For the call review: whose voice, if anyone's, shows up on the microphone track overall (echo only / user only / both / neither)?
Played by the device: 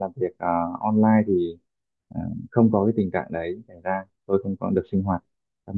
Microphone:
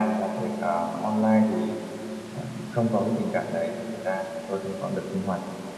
echo only